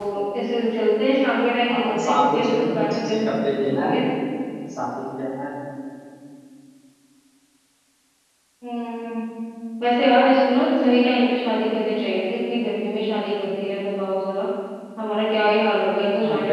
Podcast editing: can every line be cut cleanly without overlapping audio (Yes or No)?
No